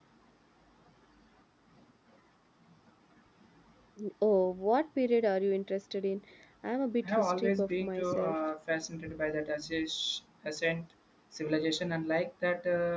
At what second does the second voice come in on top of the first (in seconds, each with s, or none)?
7.0 s